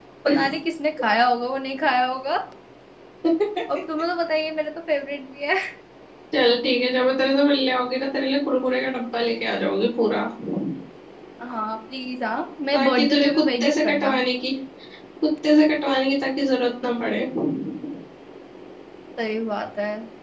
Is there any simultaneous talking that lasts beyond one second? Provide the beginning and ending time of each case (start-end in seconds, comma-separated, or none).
12.7-14.1